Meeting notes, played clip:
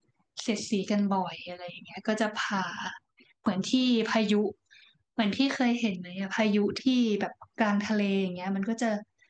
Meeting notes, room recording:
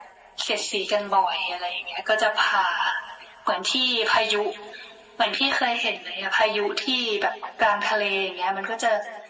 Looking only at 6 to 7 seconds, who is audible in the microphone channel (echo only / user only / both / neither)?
echo only